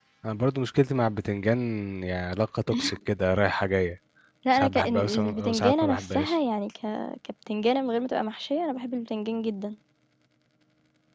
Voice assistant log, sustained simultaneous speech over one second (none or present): present